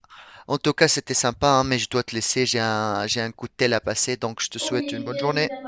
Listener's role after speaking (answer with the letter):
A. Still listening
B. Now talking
B